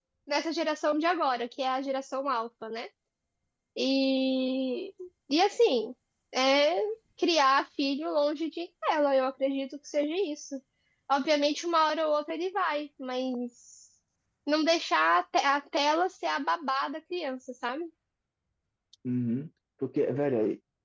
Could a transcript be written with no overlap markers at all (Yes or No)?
Yes